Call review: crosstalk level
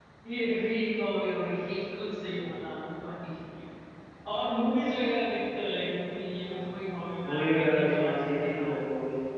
present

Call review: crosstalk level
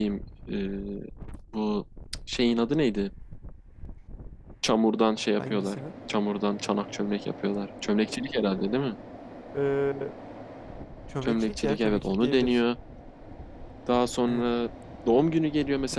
present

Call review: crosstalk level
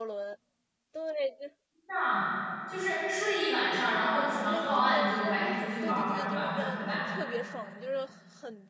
present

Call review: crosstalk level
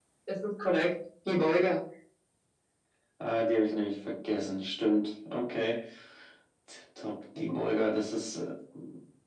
none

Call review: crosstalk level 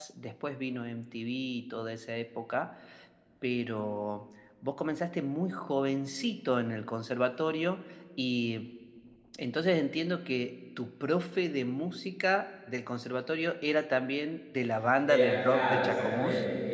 present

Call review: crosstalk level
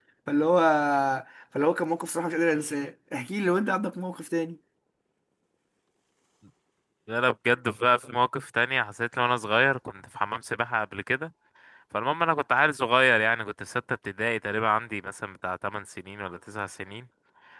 none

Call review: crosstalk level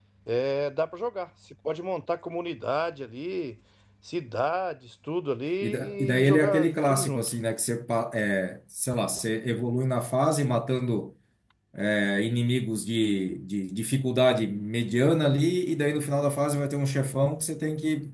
present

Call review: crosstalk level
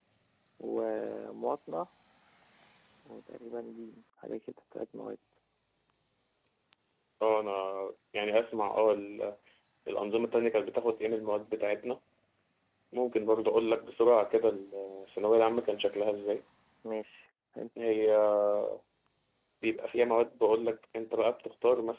none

